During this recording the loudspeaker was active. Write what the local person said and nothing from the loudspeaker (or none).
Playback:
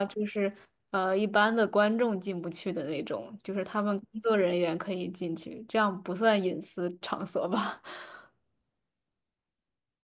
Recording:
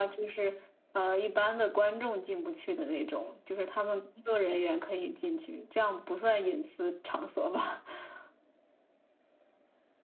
none